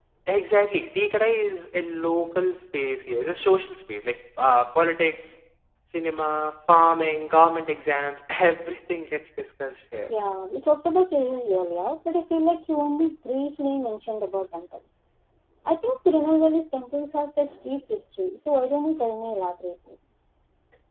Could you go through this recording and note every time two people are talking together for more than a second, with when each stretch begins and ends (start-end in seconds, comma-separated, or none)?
none